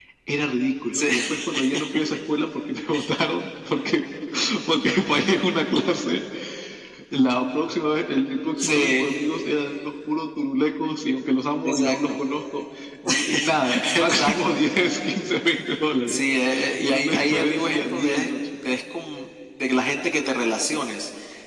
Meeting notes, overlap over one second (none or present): present